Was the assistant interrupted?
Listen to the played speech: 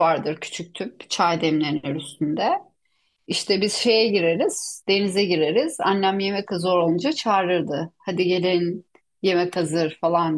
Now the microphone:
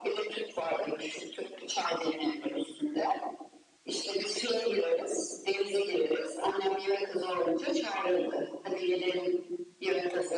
No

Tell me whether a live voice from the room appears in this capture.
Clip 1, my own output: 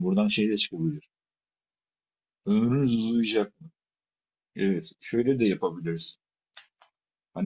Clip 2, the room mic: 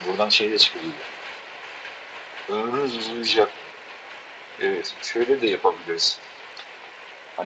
No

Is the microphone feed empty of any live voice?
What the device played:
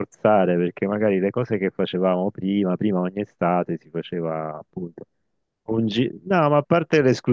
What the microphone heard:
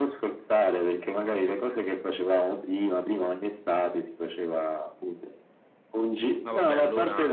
No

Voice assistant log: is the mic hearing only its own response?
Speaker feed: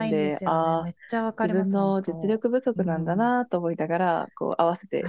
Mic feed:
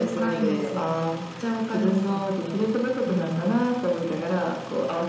Yes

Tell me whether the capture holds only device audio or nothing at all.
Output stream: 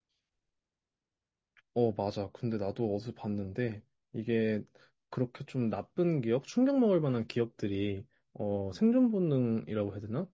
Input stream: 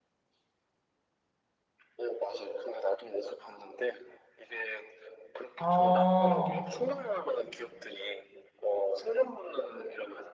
No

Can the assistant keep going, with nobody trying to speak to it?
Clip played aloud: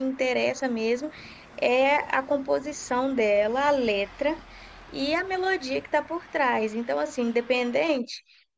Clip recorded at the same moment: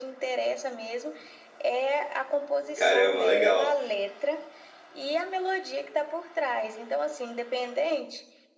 No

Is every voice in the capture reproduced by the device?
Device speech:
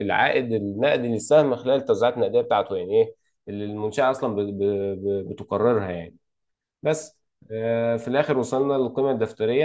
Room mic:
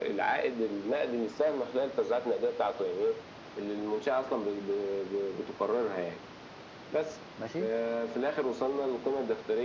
No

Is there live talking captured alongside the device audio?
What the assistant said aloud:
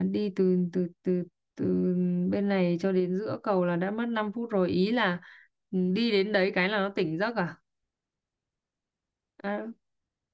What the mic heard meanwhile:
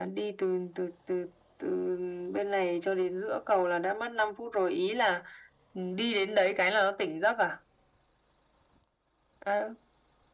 No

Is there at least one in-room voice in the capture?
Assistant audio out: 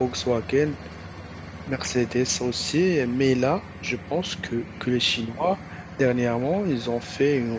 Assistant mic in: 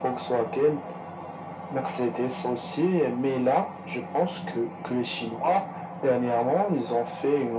No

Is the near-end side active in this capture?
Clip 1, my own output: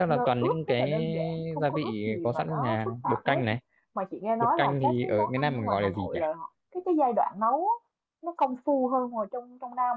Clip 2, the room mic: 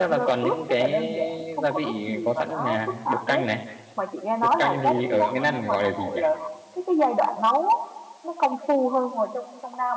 Yes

